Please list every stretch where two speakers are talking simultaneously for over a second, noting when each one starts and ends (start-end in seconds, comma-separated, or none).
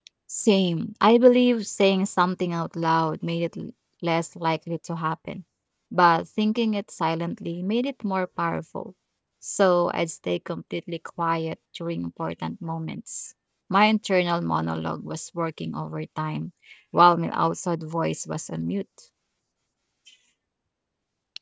none